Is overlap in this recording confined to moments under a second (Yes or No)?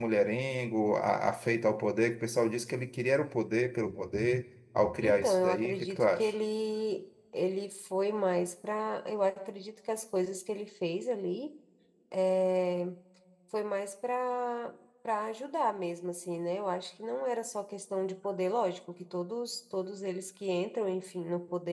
No